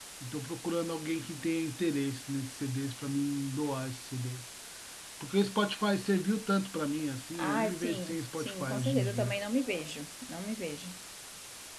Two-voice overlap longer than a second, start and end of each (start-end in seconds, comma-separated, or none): 7.4-9.3